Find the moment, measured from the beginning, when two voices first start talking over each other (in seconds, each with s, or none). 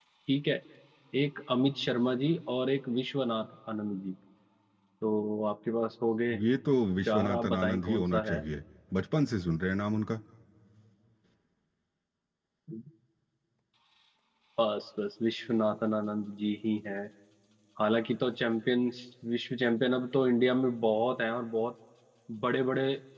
7.0 s